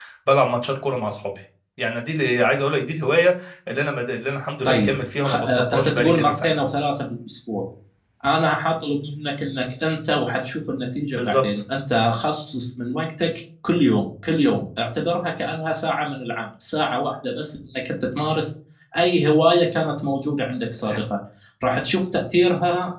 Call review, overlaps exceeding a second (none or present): present